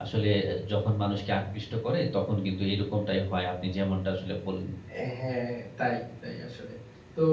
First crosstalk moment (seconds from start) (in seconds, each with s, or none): none